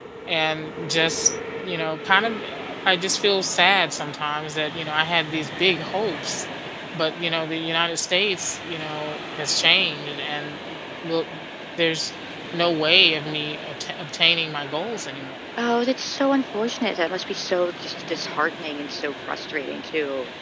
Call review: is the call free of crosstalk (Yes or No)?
Yes